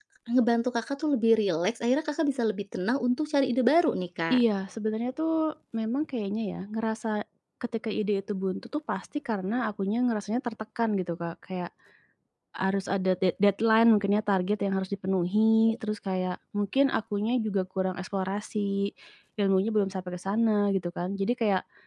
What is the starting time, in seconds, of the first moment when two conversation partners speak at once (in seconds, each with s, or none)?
none